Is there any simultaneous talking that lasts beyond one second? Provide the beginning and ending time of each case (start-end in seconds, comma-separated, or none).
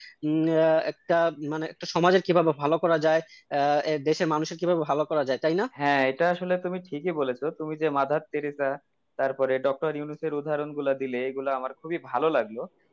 none